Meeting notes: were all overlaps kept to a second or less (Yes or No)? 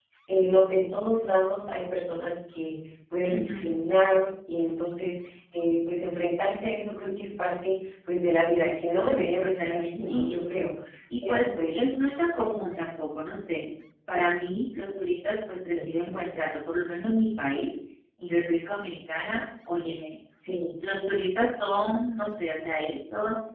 No